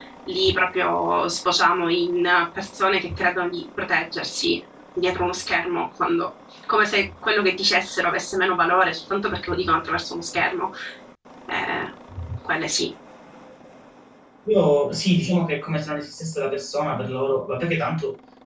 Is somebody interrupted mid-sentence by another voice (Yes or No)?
No